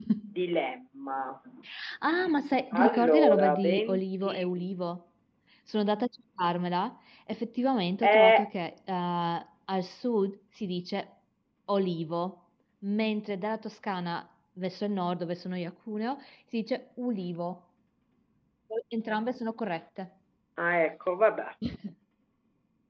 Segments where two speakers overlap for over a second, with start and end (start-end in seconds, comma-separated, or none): 2.8-4.6